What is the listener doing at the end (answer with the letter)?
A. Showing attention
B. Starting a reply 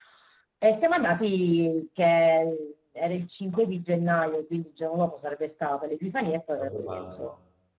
A